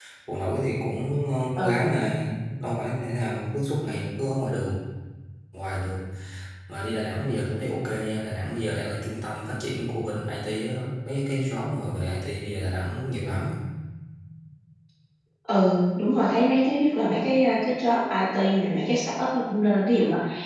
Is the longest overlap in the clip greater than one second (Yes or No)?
No